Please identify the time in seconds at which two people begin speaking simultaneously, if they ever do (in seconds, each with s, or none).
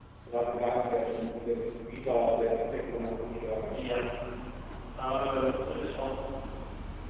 none